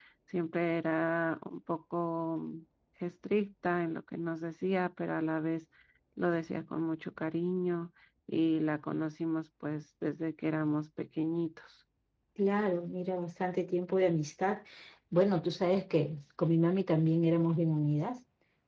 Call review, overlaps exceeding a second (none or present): none